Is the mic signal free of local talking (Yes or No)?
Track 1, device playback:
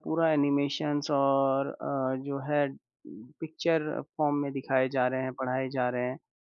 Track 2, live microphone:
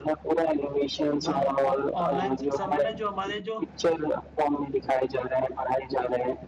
No